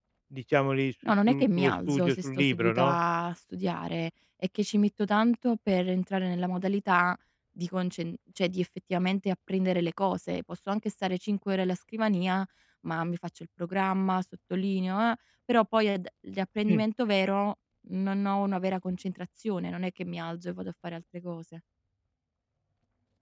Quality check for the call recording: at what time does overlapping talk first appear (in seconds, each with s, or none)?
1.3 s